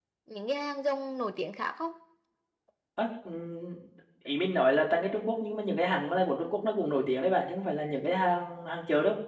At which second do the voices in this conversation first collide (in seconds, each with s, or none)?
none